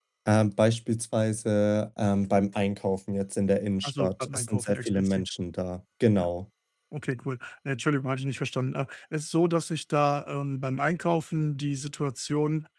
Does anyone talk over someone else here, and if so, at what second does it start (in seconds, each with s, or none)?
3.8 s